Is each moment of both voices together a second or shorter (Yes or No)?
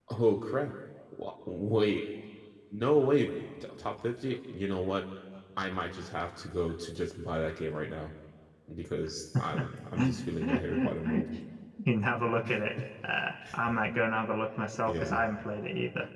No